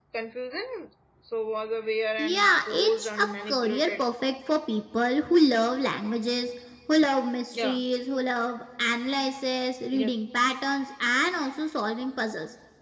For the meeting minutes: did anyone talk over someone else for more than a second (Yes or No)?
Yes